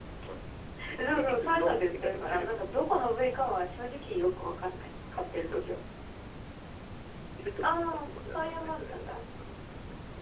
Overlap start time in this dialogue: 1 s

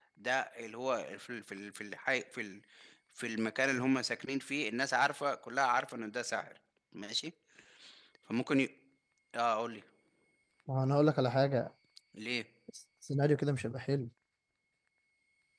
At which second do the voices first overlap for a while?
none

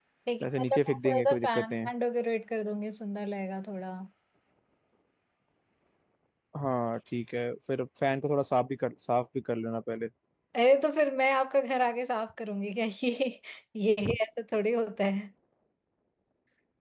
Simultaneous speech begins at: 1 s

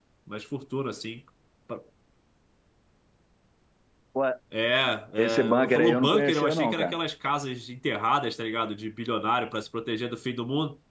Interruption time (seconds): 5 s

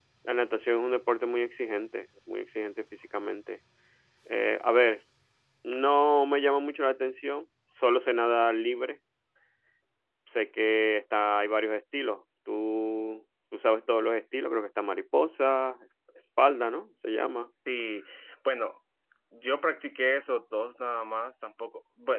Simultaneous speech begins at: none

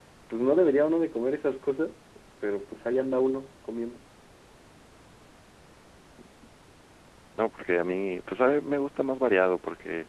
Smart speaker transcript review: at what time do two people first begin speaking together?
none

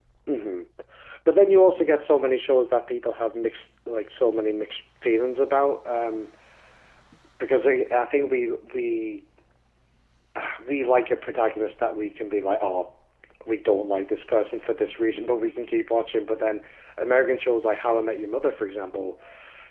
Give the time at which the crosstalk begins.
none

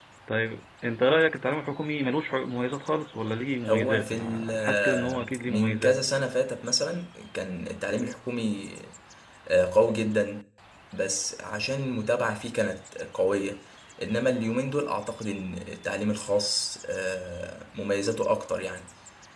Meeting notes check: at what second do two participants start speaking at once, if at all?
4 s

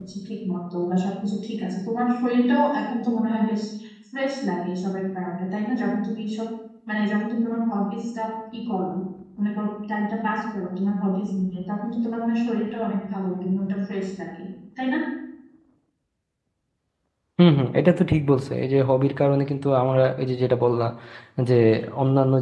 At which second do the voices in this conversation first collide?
none

